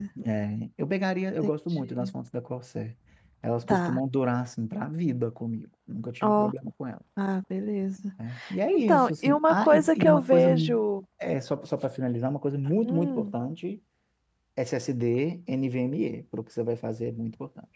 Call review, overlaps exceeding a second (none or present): present